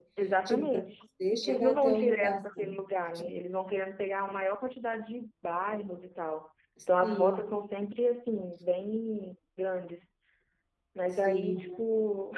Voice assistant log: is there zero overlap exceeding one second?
No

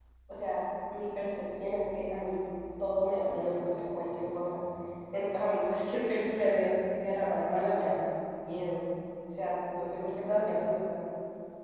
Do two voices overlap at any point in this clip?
No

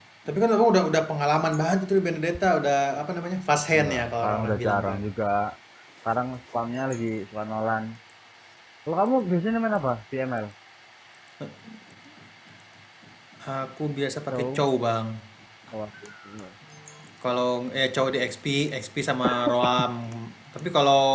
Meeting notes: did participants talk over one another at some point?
Yes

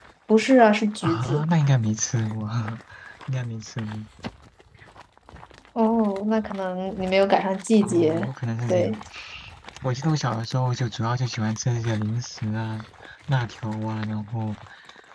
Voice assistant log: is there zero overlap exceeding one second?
Yes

